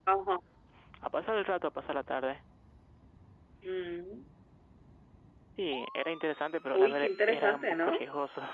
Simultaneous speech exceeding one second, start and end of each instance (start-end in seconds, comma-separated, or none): 6.7-8.0